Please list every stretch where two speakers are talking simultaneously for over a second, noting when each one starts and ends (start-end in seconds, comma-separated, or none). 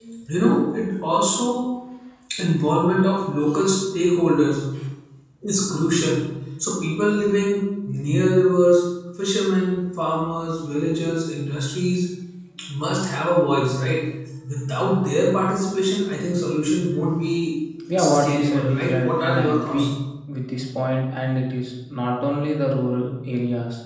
17.9-19.9